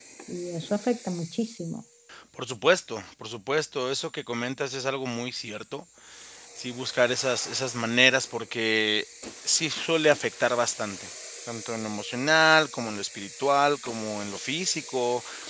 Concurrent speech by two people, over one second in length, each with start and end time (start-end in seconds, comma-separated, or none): none